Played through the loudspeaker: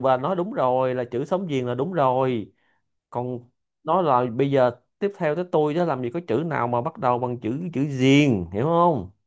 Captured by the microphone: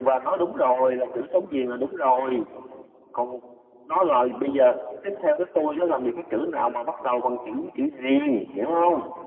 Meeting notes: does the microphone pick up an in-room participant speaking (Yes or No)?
No